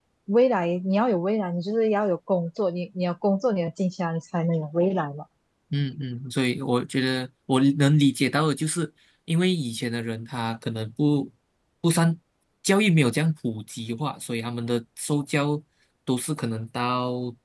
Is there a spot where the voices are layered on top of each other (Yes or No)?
No